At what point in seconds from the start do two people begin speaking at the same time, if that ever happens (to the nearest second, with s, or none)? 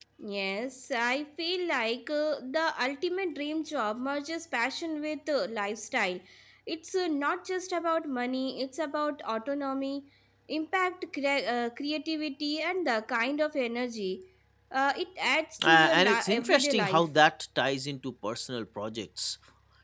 16 s